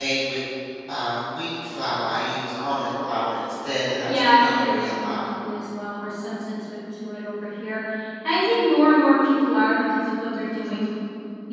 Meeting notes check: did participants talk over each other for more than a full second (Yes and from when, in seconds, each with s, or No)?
Yes, from 4.1 s